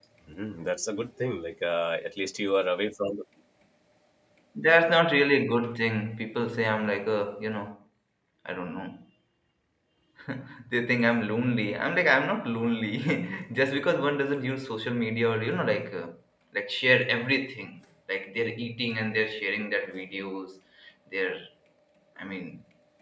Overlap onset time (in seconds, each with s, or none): none